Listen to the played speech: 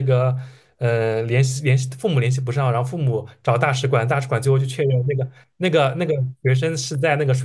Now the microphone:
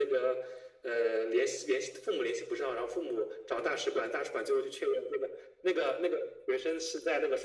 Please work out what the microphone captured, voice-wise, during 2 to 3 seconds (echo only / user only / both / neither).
echo only